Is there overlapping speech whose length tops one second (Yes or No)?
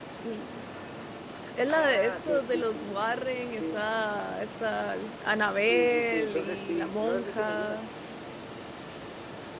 Yes